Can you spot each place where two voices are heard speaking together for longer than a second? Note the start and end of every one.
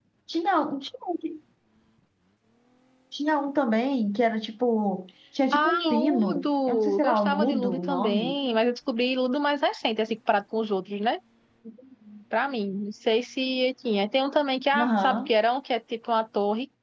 5.5-8.3

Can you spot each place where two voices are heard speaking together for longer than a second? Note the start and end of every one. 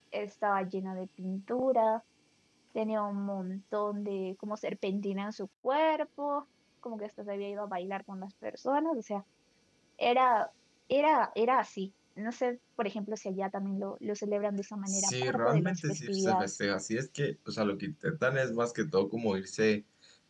14.9-16.5

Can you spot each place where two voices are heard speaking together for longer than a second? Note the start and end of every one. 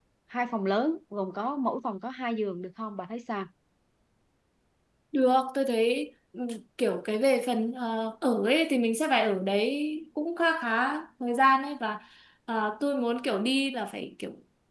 none

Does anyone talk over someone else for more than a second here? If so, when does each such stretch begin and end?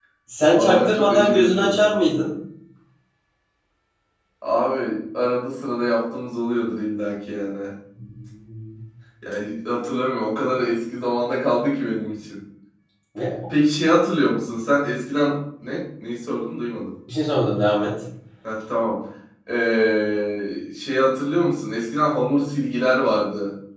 0.5-1.9

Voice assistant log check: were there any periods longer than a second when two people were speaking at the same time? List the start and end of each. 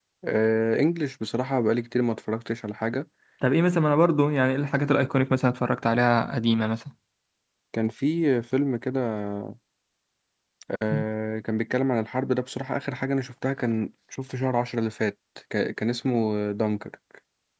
none

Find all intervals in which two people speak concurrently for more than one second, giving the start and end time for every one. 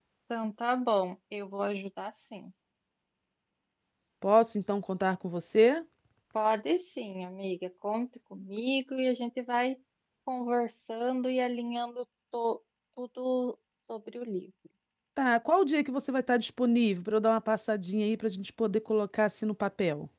none

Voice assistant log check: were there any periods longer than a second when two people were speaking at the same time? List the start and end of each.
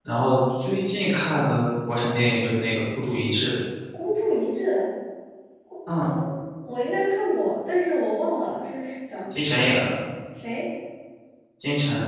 none

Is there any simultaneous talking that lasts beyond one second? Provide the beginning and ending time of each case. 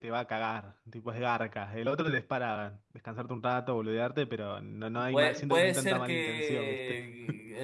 5.1-7.0

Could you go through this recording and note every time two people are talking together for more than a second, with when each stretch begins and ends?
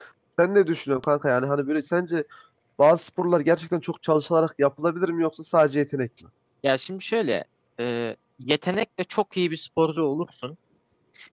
none

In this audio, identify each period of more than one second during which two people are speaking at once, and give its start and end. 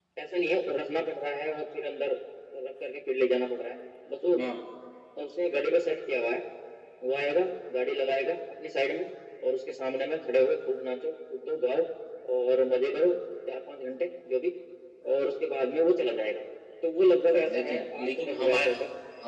17.3-18.7

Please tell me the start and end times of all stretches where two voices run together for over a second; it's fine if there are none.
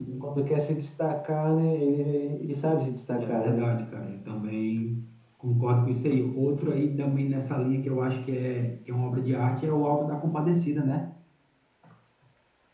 none

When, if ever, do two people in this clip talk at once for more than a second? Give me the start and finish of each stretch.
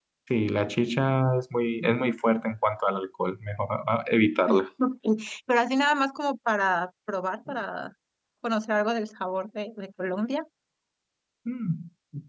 none

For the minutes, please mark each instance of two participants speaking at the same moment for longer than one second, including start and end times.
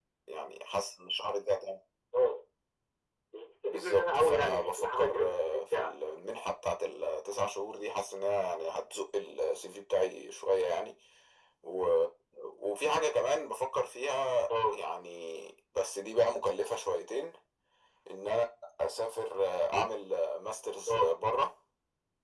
3.7-6.0

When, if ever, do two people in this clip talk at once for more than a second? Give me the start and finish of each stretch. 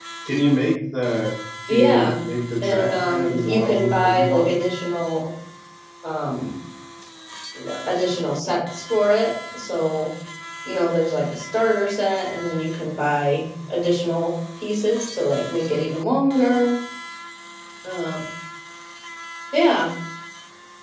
2.6-4.5

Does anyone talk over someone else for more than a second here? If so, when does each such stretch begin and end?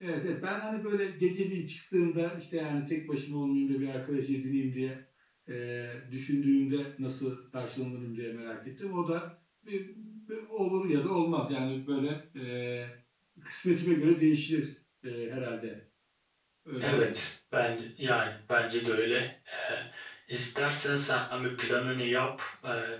none

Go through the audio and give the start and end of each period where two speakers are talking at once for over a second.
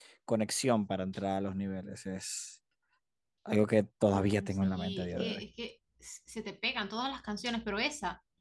4.1-5.4

